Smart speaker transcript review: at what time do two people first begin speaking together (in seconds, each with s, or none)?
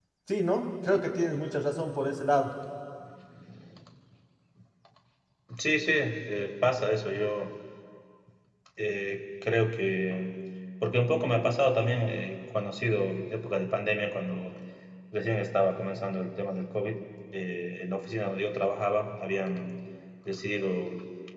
none